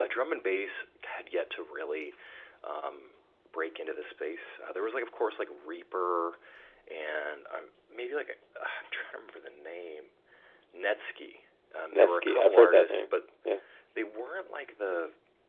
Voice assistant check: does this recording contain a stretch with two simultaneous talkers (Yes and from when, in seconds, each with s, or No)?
Yes, from 11.9 s